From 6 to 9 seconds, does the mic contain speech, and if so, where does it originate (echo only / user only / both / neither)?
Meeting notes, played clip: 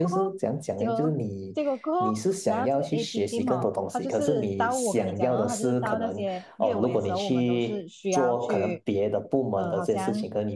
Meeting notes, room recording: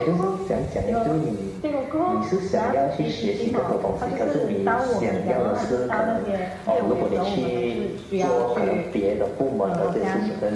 echo only